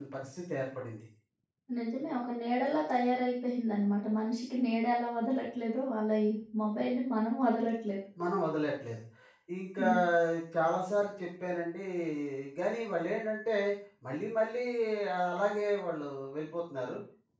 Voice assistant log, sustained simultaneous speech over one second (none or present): none